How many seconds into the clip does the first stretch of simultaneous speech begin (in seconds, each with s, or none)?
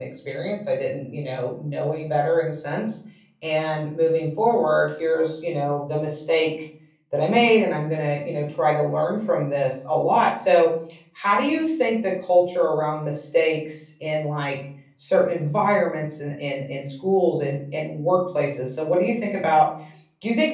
none